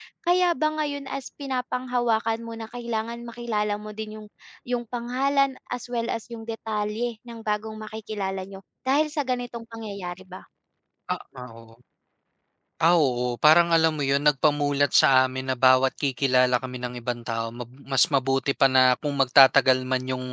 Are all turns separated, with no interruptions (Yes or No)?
Yes